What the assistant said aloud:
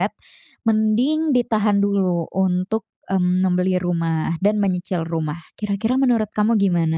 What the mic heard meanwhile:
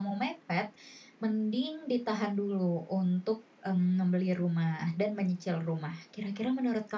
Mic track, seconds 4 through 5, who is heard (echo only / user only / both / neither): echo only